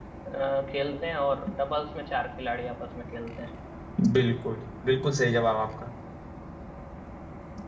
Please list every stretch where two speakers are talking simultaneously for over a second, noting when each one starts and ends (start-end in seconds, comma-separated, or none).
none